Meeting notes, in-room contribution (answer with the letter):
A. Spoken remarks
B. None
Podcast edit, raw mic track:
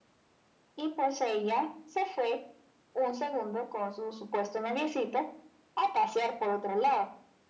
B